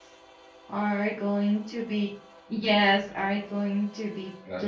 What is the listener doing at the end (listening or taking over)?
listening